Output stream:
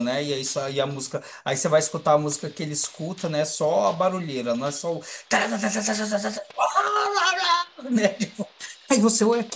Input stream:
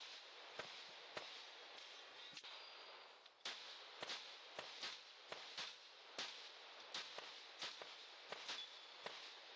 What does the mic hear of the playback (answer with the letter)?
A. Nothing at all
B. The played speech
A